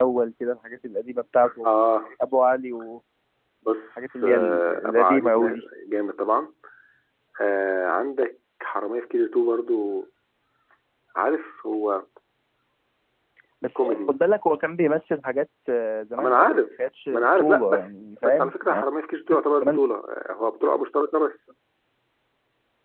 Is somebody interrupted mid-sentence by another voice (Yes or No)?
Yes